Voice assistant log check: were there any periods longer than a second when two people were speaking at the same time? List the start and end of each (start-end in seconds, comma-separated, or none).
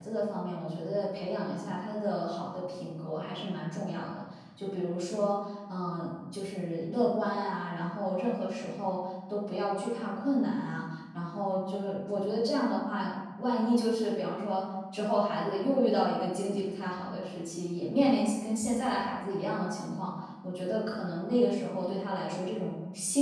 none